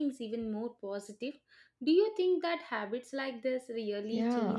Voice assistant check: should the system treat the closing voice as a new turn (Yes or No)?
Yes